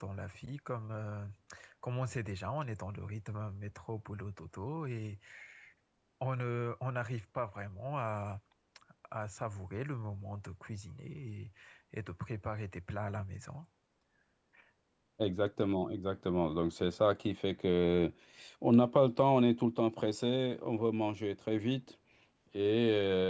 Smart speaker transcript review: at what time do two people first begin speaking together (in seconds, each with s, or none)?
none